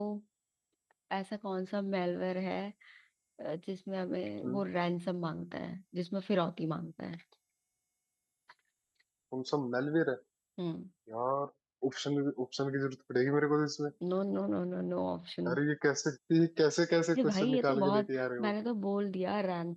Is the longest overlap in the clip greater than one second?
Yes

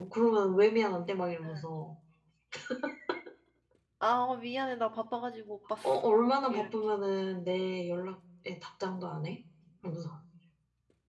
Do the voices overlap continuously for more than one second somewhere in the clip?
No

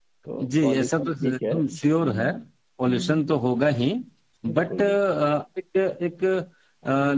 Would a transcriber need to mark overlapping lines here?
Yes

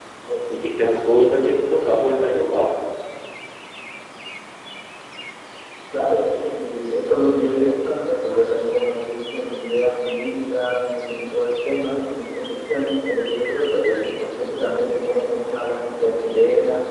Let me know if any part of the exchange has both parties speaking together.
No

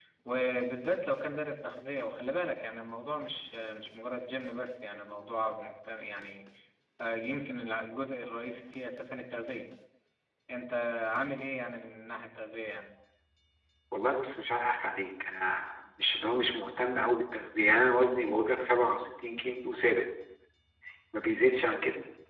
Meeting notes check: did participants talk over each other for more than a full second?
No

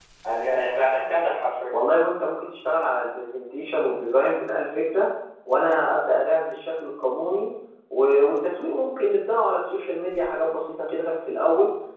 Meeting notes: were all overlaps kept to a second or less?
Yes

